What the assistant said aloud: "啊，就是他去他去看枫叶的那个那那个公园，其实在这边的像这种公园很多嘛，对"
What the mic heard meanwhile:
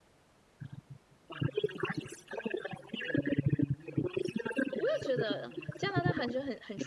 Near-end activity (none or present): present